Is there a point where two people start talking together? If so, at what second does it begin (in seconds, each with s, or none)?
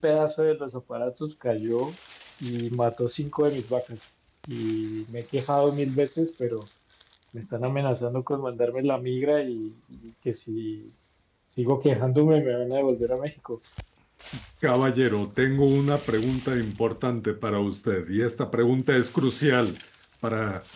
none